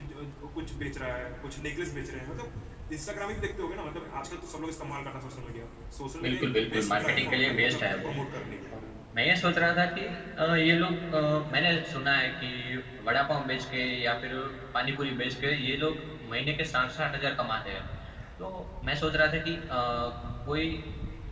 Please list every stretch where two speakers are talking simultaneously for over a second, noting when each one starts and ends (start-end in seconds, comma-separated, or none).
6.2-8.1